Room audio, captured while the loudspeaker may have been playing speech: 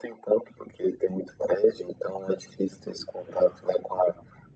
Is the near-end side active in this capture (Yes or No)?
No